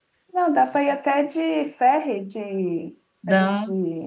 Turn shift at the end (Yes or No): No